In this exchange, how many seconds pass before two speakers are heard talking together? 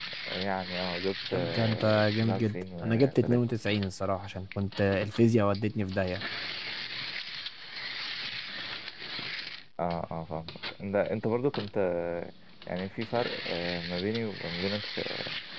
1.3 s

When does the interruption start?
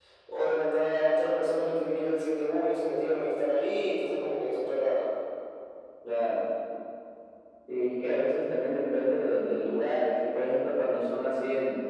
none

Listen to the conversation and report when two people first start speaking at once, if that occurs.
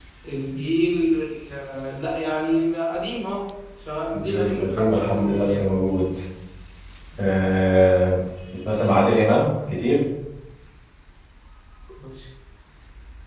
4.1 s

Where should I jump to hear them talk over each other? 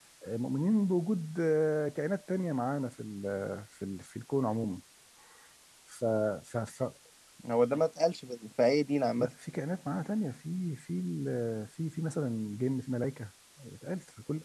none

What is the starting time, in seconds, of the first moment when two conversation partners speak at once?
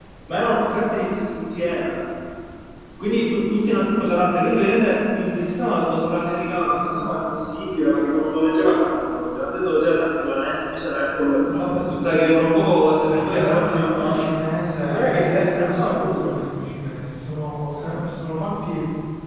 13.0 s

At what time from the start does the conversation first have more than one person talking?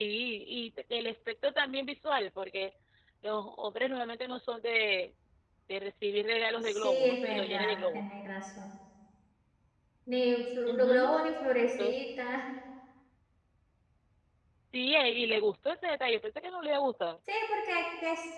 6.7 s

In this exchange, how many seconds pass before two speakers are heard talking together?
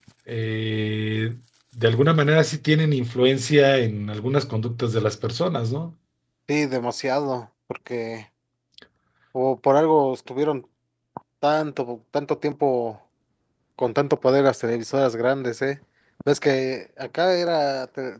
none

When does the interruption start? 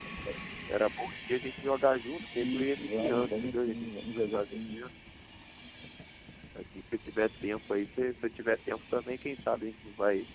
2.3 s

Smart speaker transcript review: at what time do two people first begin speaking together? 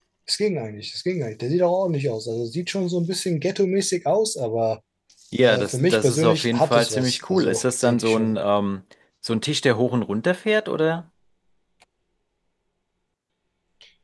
5.4 s

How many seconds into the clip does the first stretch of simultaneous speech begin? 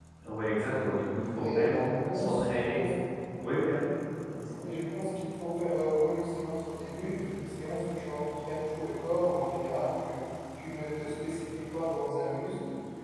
1.4 s

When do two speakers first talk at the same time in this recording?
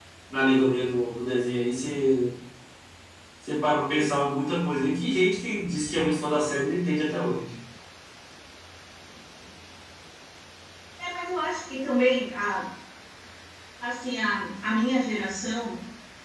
none

